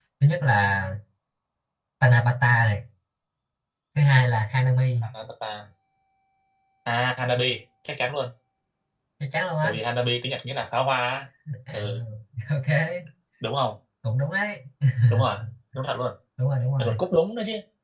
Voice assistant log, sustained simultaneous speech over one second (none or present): none